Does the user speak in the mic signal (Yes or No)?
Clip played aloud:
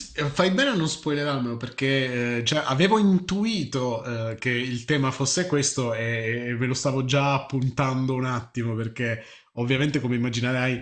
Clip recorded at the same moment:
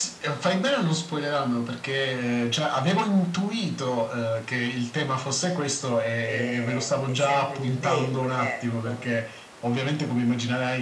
Yes